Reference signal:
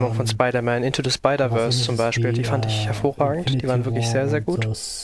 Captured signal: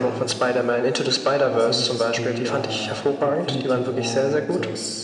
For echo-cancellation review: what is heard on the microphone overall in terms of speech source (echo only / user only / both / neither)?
echo only